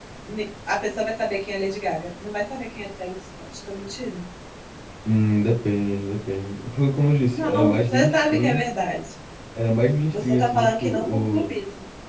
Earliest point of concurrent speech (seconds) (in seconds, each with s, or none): 7.3 s